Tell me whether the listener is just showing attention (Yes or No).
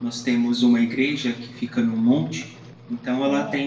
Yes